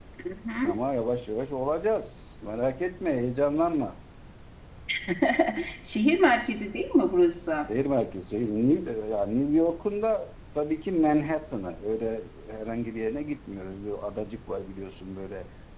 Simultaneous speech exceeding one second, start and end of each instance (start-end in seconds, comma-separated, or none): none